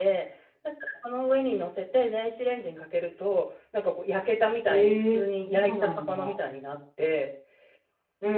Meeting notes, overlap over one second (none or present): present